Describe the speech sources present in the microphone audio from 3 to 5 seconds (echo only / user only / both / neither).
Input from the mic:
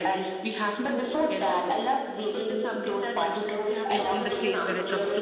both